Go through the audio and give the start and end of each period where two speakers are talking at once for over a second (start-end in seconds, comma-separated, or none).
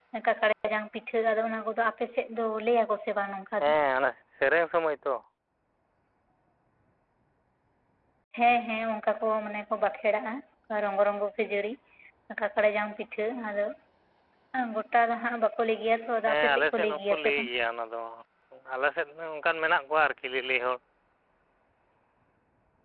16.3-17.5